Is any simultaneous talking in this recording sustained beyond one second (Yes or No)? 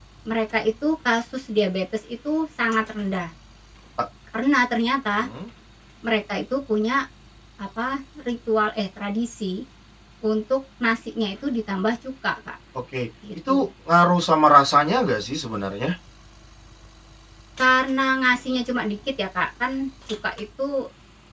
No